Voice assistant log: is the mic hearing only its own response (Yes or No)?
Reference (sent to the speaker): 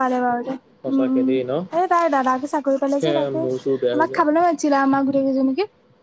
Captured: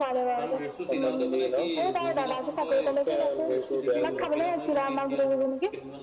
No